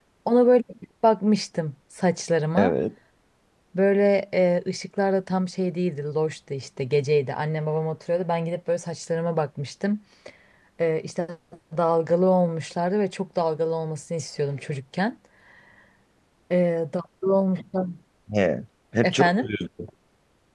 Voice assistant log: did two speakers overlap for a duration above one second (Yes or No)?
No